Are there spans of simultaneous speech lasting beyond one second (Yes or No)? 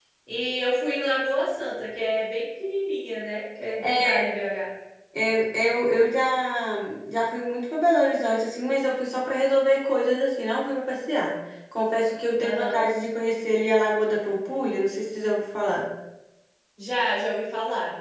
No